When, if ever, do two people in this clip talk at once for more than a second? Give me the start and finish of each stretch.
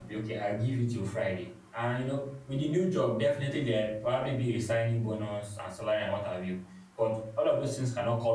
none

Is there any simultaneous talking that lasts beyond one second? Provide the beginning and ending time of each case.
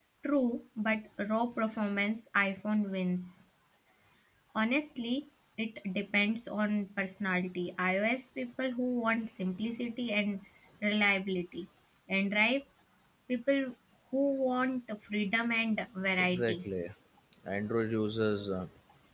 none

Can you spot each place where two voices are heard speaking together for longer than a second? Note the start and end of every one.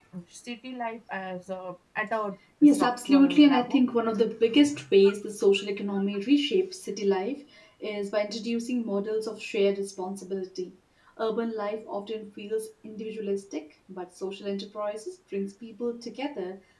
2.6-3.8

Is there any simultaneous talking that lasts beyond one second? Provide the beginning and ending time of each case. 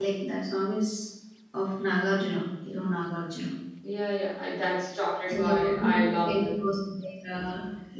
5.3-6.5

